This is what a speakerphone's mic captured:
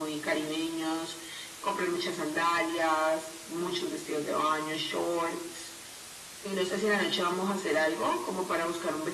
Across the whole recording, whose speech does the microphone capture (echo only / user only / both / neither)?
echo only